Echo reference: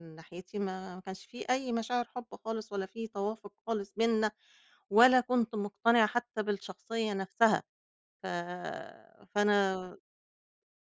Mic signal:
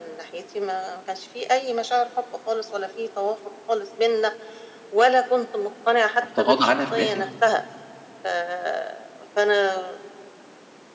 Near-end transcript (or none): طب تغاضى عنها في الآخر؟